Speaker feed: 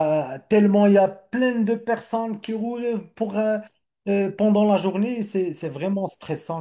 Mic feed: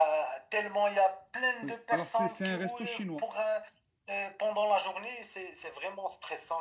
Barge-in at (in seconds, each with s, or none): 1.6 s